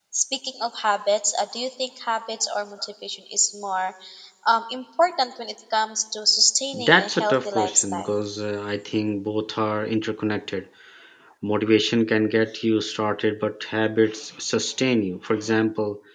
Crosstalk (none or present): present